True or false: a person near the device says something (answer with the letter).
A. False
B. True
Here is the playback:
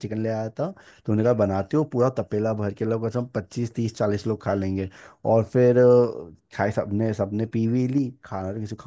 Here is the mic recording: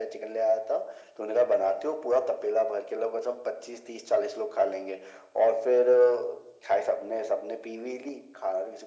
A